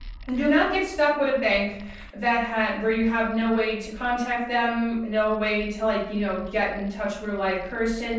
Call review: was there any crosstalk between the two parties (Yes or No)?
No